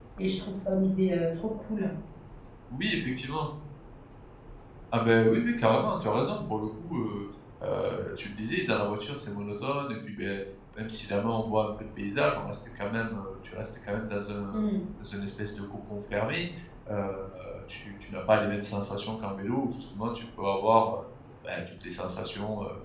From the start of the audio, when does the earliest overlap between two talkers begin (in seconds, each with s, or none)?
none